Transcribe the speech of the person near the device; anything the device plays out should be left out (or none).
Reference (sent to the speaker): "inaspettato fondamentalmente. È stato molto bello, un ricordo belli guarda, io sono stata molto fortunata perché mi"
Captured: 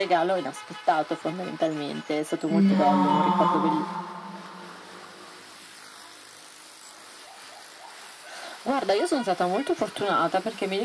No!